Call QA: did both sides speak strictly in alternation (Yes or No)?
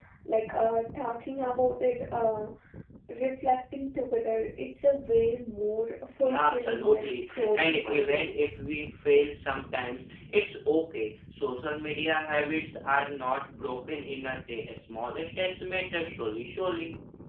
No